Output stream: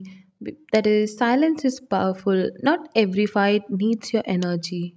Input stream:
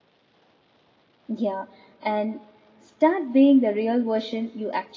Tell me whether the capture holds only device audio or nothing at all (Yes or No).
No